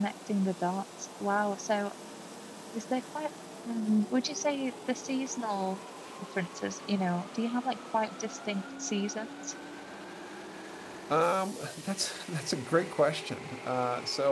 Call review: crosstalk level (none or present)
none